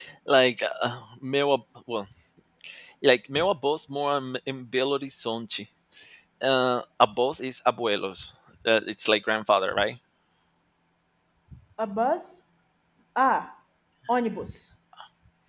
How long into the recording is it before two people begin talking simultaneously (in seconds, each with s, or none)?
none